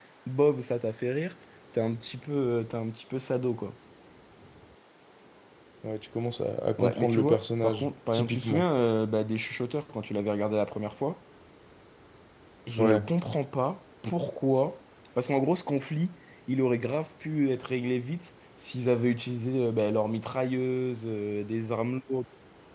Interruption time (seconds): 6.8 s

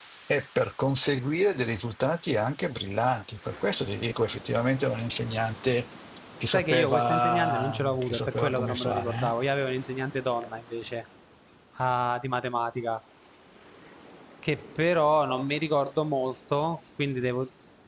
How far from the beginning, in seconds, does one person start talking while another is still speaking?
6.5 s

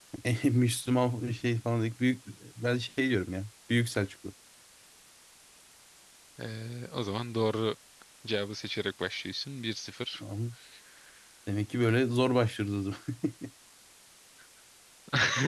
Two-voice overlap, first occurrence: none

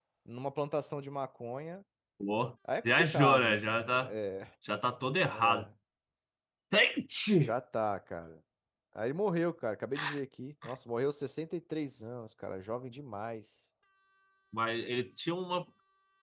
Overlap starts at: 2.8 s

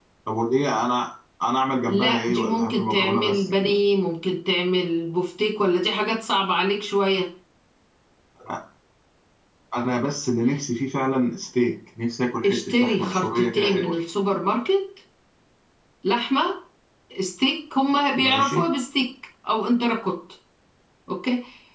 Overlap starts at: 1.9 s

